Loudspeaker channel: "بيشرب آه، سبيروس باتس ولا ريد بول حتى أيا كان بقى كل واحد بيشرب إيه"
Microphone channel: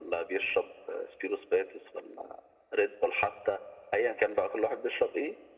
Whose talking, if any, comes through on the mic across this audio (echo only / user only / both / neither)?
echo only